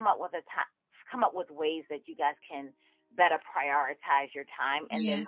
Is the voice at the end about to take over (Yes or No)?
No